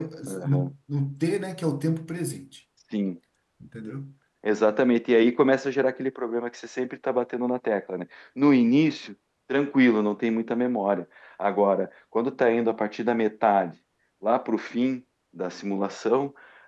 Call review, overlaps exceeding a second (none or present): none